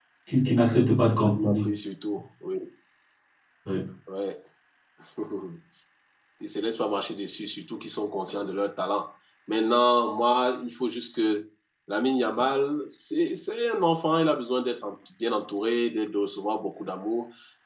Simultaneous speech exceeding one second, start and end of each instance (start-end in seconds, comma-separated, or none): none